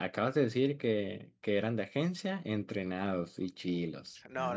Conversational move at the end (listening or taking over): taking over